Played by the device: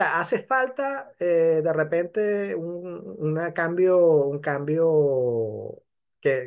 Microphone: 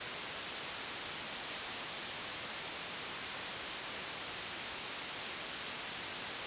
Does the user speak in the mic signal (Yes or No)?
No